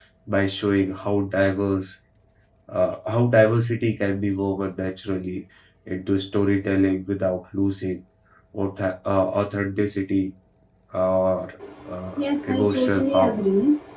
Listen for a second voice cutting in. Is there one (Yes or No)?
Yes